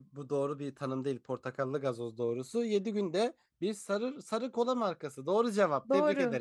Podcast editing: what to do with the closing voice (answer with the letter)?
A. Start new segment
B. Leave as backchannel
A